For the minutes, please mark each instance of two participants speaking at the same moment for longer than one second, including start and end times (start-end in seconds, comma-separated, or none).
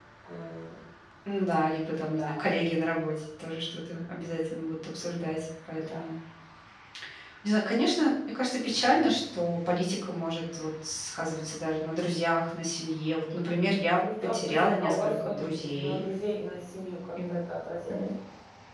13.9-16.0